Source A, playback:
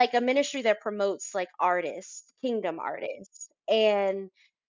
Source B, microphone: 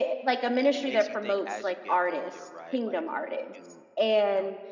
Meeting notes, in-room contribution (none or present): present